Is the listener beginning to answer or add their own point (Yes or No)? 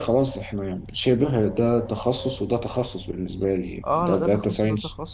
Yes